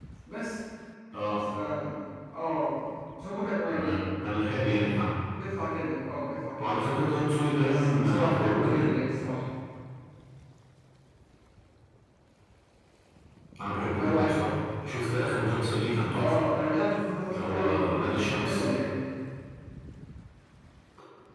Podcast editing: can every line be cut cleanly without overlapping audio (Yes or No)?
No